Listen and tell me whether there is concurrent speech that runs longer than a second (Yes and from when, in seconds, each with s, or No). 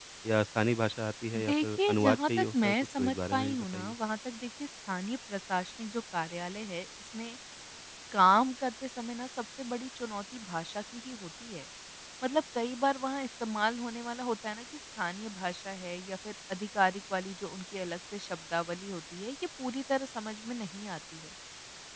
Yes, from 1.3 s